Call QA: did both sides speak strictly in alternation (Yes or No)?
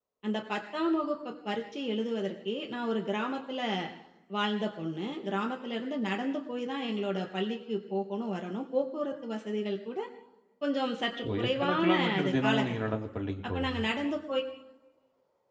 No